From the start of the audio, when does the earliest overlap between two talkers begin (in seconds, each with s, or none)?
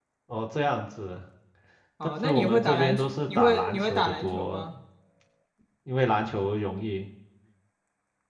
2.2 s